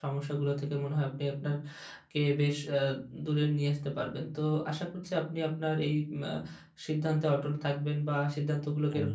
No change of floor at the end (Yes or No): Yes